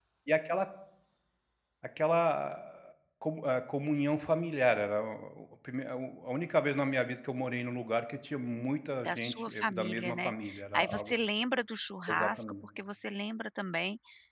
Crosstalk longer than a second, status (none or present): present